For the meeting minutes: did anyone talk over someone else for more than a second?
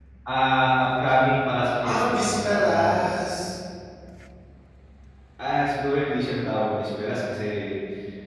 Yes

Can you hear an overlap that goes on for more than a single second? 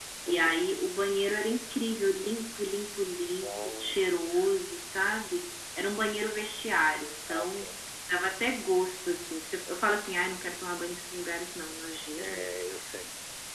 No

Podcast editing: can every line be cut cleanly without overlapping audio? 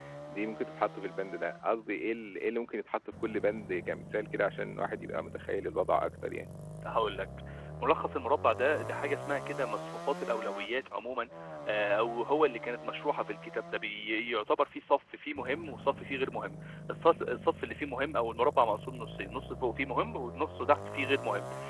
Yes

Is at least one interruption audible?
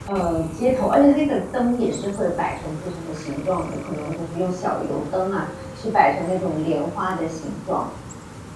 No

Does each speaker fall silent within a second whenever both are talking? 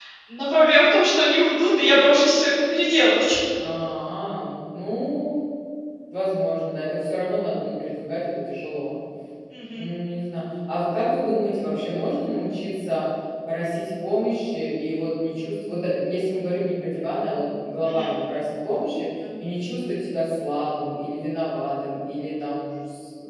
Yes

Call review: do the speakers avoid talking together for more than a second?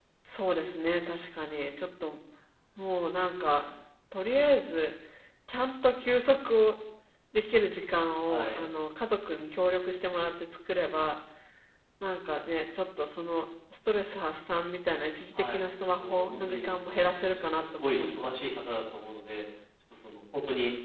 No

